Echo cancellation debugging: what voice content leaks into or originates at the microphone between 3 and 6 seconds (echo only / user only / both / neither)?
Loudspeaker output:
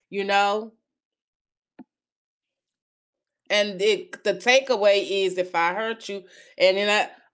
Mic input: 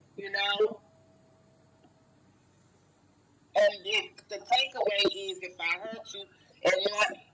echo only